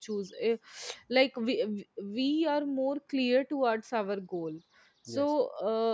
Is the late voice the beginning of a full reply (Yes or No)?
No